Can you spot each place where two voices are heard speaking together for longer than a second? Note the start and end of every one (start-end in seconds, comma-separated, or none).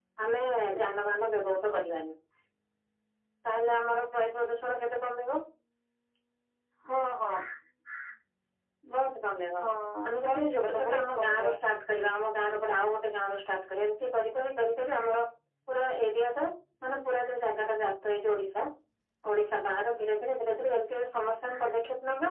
10.2-11.5